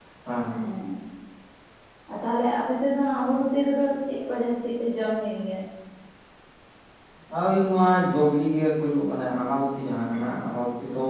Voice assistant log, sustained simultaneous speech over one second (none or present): none